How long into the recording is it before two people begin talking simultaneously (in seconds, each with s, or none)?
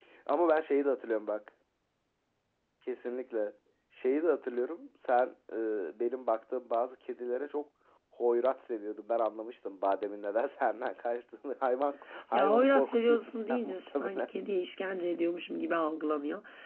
12.3 s